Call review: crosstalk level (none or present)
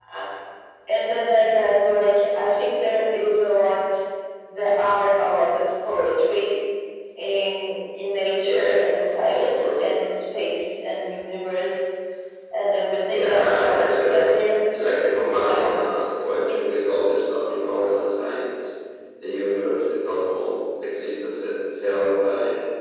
present